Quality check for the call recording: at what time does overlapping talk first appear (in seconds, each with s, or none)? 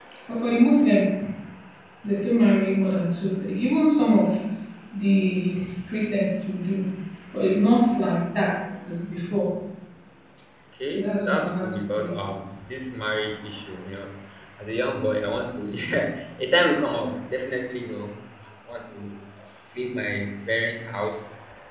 10.9 s